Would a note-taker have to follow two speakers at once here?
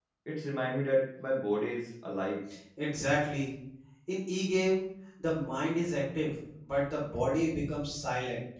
No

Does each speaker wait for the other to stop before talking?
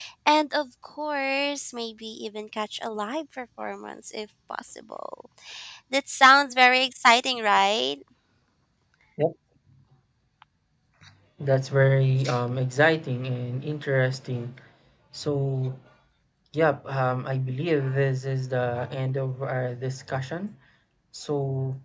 Yes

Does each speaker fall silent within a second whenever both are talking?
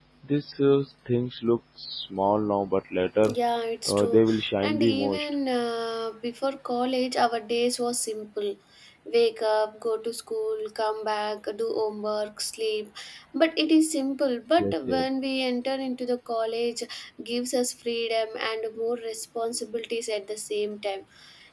No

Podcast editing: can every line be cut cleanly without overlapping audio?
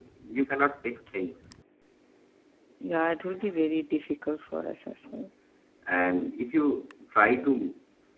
Yes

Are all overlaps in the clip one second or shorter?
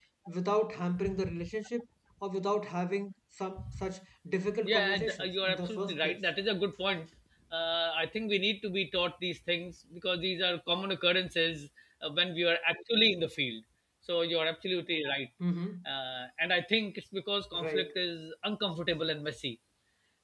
No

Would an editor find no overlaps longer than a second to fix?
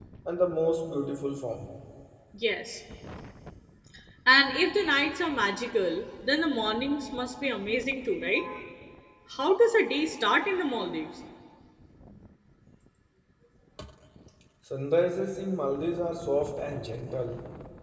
Yes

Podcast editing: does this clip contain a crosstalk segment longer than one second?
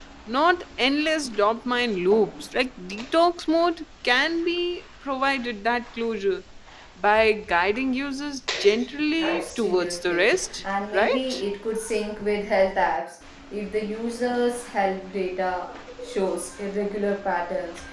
Yes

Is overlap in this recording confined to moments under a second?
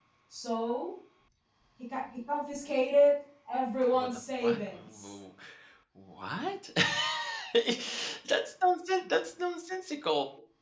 No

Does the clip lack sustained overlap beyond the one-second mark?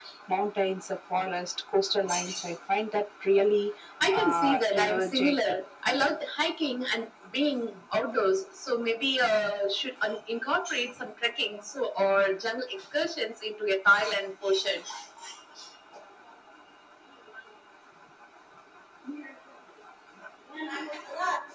No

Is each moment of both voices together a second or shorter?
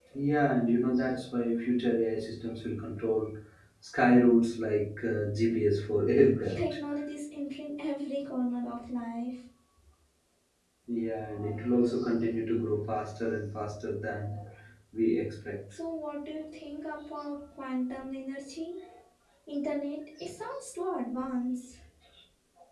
Yes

